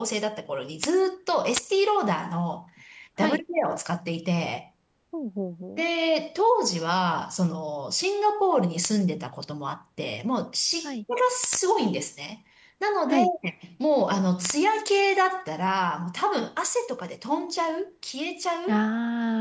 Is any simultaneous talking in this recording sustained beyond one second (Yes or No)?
No